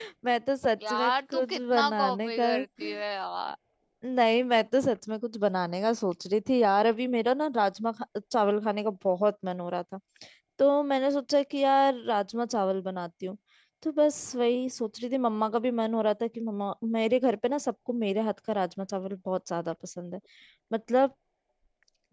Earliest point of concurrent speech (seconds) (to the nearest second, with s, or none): 1 s